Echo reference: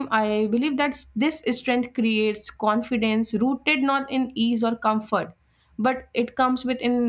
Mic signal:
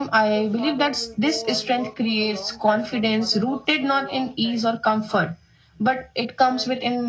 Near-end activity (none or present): present